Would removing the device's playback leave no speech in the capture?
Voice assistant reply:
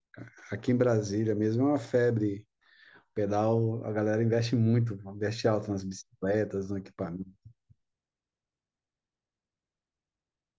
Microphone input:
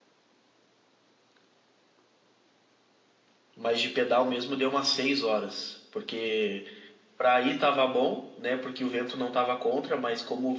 No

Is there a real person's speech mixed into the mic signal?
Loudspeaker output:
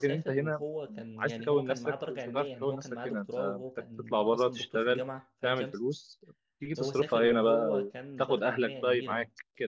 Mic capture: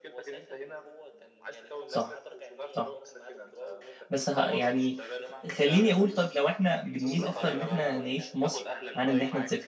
Yes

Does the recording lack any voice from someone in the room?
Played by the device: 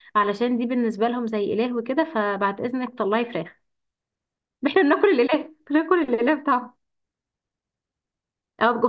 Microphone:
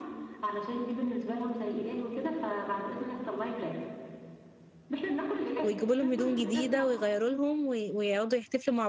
No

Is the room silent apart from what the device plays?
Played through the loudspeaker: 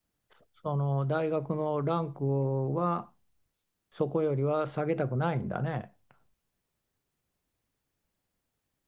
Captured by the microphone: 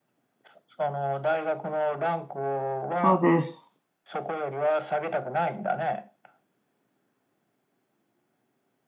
No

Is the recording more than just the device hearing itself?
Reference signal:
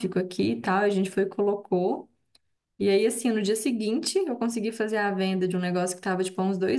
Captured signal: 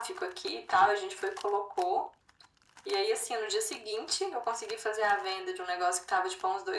No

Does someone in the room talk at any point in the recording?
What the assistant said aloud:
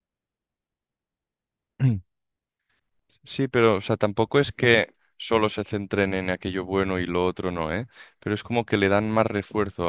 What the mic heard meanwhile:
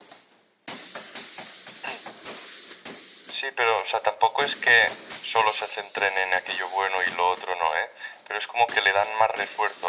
No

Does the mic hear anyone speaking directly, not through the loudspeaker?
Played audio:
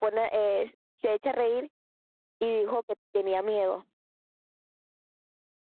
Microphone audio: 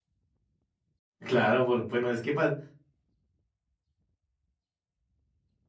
Yes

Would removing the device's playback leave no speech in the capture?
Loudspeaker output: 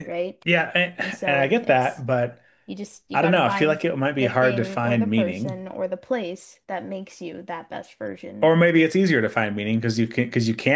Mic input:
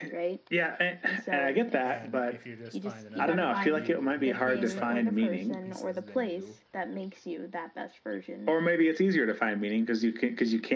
No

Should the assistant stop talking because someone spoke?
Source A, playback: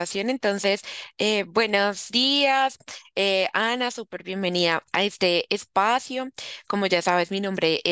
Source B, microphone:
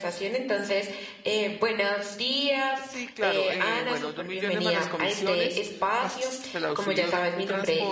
Yes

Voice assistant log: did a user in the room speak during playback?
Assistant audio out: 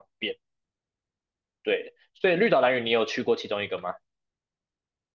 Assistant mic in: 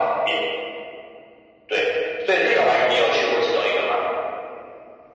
No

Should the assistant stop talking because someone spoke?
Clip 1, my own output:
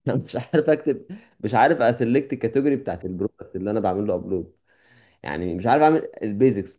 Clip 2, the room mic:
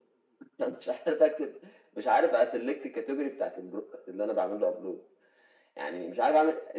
No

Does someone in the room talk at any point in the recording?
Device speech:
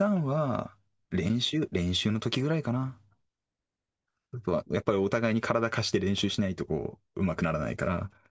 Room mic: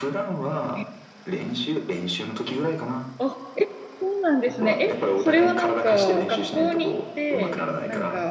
Yes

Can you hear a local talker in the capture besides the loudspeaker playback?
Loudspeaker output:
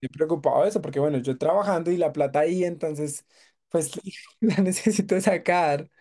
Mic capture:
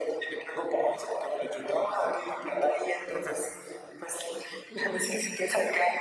Yes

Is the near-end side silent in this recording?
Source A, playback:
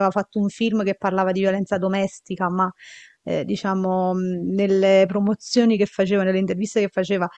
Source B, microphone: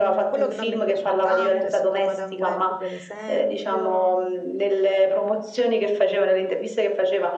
No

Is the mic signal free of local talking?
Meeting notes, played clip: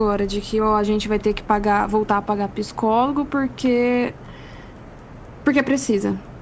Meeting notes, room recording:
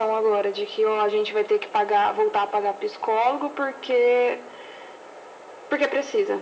Yes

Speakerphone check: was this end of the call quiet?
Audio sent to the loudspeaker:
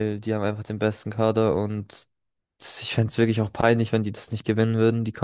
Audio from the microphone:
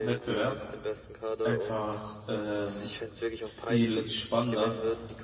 No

